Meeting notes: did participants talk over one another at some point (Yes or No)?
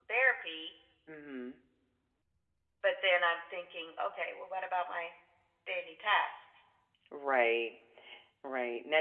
No